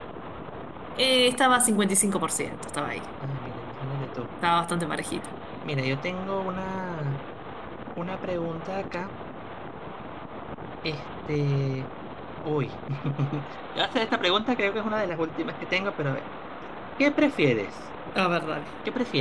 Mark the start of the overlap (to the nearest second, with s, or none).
none